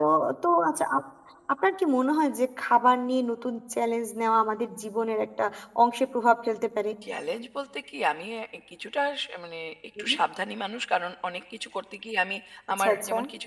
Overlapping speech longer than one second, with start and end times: none

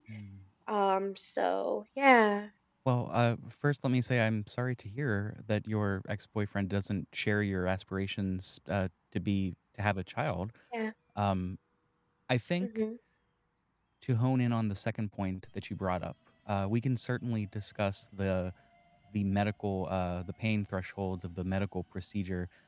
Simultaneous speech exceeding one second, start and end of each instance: none

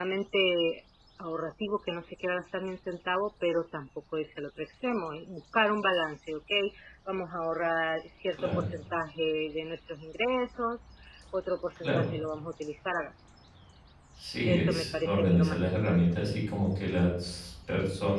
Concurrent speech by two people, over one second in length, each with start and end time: 14.4-16.0

